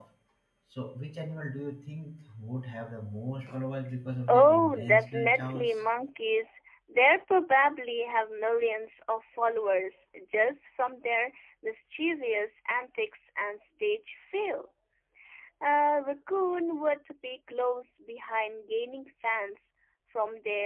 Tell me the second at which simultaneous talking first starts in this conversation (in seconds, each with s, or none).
4.3 s